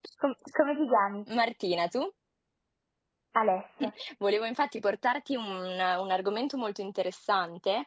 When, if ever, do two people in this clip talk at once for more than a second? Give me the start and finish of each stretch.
none

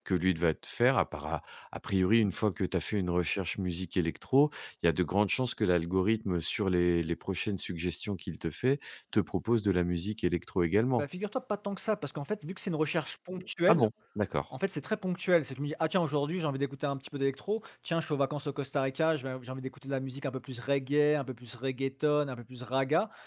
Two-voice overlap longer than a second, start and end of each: none

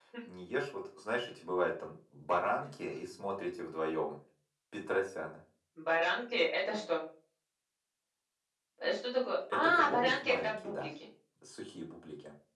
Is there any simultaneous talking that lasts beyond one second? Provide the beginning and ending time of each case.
9.6-10.8

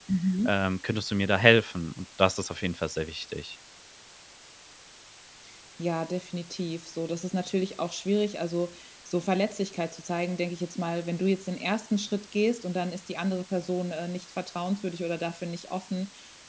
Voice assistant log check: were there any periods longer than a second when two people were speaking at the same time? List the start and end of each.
none

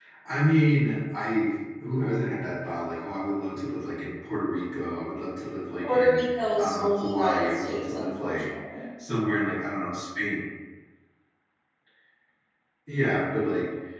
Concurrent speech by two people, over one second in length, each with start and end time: 5.8-8.5

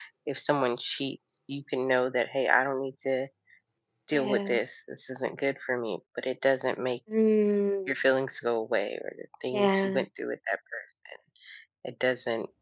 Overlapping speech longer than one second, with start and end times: none

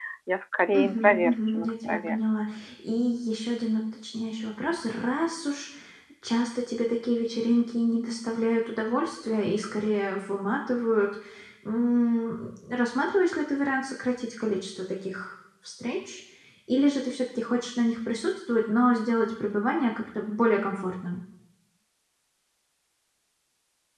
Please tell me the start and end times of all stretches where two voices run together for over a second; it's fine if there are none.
0.7-2.2

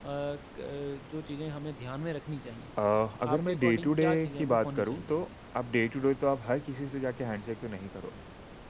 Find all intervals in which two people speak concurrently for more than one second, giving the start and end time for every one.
3.3-5.2

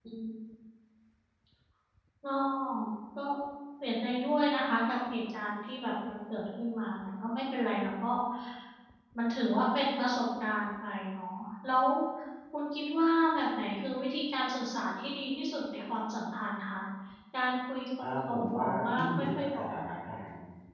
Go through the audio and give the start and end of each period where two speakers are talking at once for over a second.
18.0-19.8

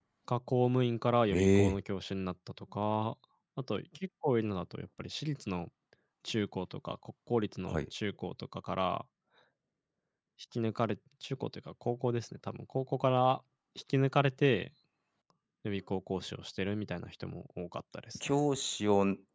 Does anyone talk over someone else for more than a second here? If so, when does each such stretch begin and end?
none

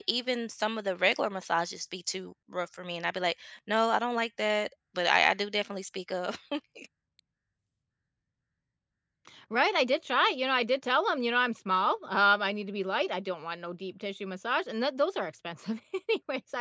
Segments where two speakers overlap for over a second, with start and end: none

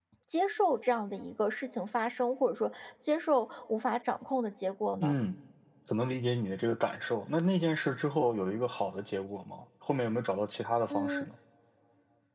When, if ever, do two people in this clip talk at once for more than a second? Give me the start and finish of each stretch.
none

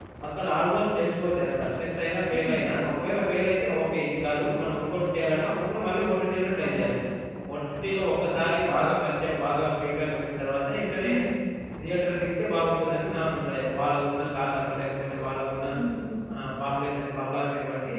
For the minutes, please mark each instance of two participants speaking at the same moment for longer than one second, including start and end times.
none

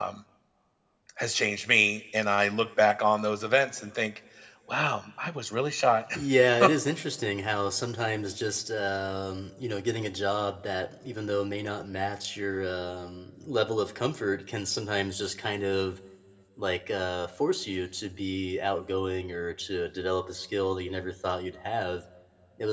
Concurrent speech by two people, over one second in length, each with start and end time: none

